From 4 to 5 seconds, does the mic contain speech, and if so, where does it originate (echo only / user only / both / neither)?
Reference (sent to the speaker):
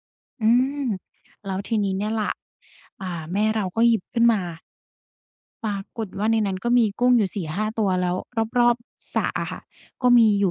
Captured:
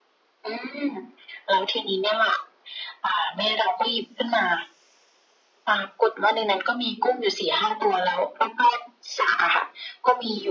echo only